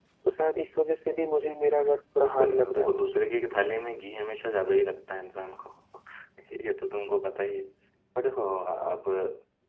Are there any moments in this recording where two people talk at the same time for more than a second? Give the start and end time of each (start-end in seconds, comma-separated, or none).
2.2-3.5